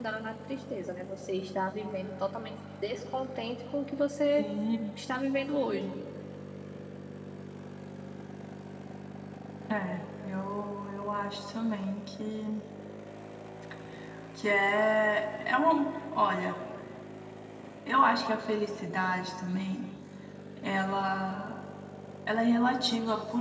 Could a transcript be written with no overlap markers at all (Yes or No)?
Yes